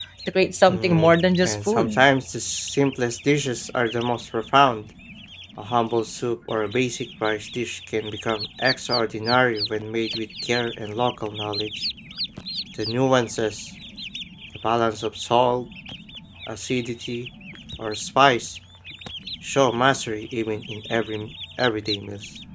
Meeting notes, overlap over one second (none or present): present